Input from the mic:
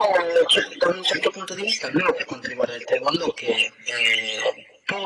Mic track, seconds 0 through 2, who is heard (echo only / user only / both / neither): echo only